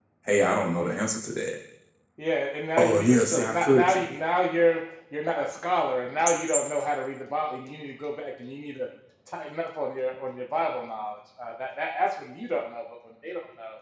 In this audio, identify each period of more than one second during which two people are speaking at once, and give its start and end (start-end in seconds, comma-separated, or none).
2.8-4.1